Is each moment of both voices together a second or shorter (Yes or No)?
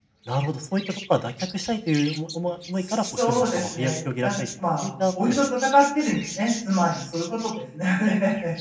No